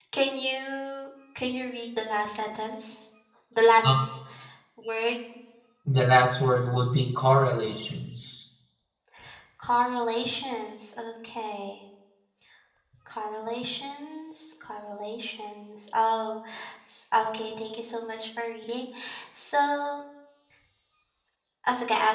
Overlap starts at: none

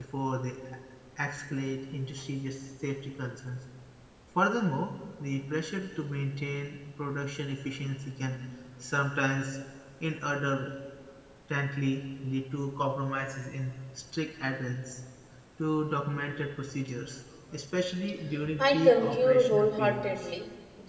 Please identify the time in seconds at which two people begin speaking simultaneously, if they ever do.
18.6 s

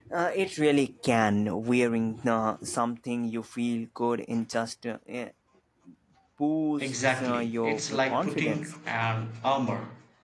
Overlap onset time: 6.8 s

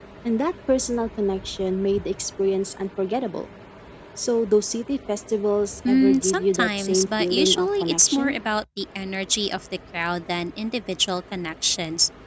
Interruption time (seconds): 5.8 s

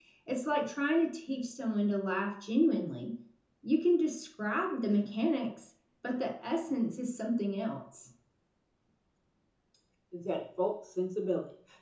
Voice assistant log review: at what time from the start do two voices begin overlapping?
none

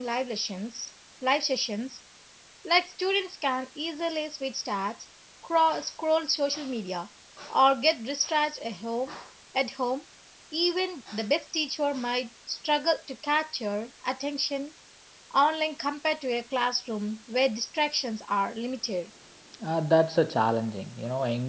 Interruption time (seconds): none

